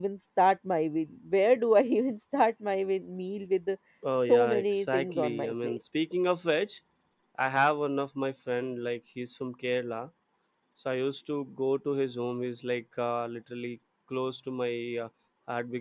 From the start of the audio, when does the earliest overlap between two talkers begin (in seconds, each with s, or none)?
4.0 s